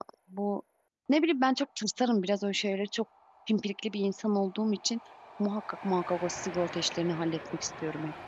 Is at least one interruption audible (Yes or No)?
No